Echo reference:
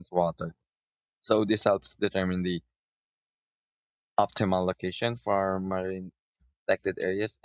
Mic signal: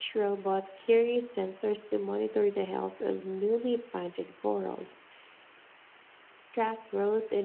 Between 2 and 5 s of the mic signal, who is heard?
user only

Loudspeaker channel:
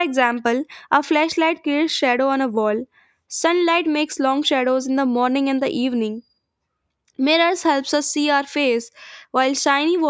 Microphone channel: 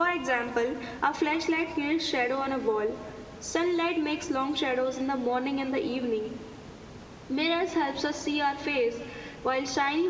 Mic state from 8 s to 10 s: echo only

